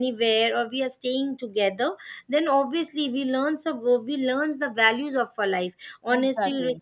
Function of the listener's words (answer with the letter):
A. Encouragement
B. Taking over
A